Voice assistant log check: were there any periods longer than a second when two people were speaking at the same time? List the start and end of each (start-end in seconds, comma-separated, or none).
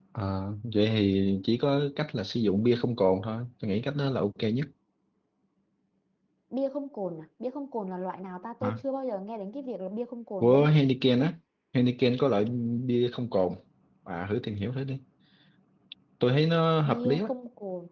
none